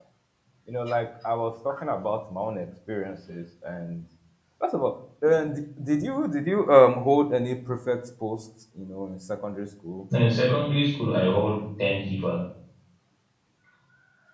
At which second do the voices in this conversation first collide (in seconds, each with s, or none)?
none